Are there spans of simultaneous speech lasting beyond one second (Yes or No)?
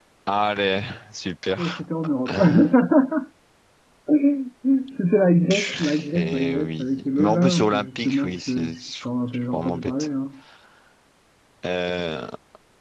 Yes